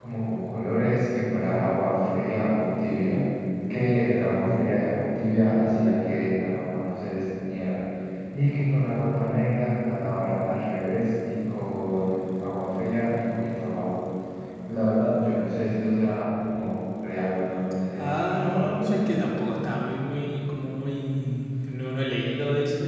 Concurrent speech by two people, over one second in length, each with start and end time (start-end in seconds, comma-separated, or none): 18.0-19.2